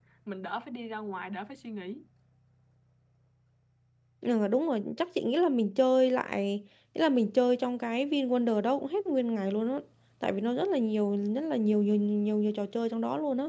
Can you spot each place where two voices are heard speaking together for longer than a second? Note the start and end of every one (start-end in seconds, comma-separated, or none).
none